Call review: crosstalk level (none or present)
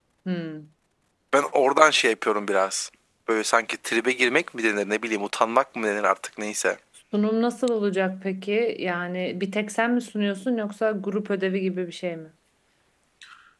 none